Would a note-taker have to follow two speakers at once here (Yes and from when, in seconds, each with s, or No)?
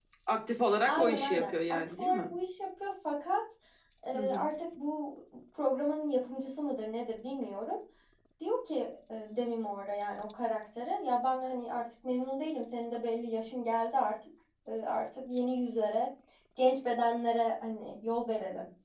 Yes, from 0.9 s